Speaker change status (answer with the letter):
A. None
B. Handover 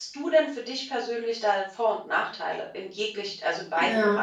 B